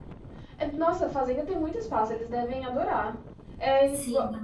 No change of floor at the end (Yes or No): No